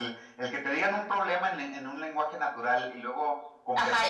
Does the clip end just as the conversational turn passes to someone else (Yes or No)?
Yes